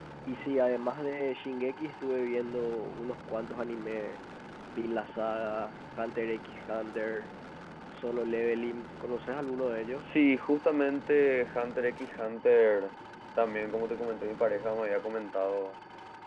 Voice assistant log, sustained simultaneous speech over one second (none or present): none